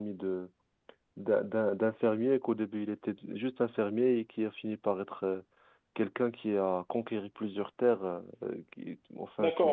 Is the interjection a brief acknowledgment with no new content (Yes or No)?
No